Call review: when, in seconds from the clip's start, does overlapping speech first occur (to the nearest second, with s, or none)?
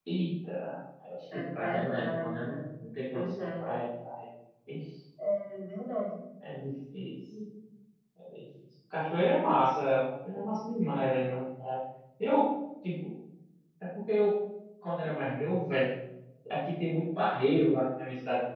1 s